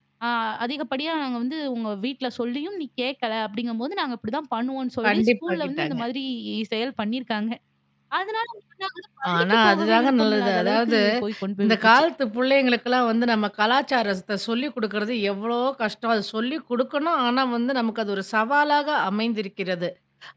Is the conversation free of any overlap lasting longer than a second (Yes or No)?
No